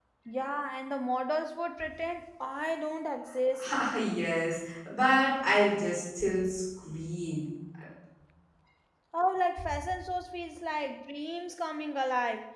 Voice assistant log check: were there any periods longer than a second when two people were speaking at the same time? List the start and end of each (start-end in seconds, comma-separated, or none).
none